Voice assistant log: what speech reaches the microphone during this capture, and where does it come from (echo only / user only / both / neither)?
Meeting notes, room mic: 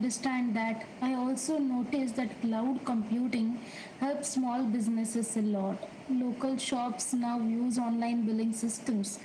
echo only